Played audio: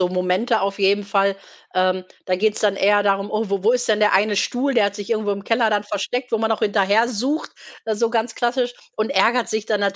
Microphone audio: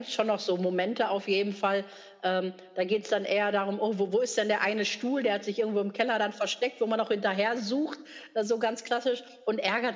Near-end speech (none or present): none